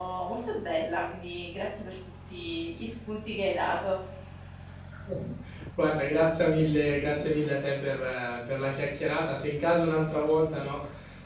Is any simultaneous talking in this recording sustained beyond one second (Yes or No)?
No